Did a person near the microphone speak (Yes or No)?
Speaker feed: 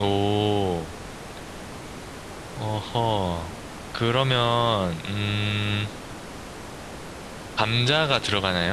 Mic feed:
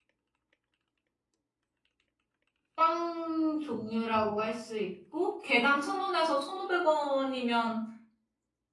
Yes